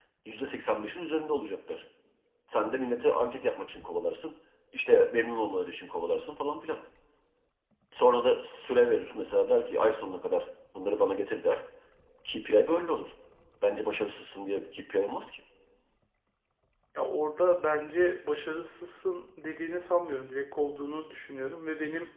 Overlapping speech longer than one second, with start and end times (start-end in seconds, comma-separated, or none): none